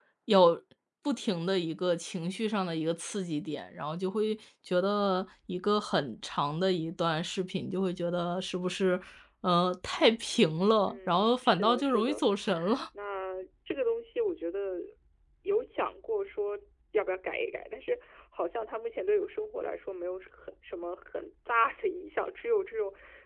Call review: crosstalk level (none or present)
present